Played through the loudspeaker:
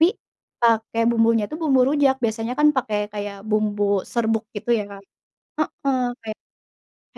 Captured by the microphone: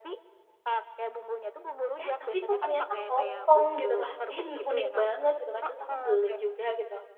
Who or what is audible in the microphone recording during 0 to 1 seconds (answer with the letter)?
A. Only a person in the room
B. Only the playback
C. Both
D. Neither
B